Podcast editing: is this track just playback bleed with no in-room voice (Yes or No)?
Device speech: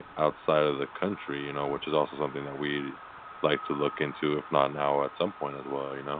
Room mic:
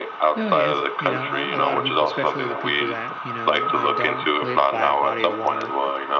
No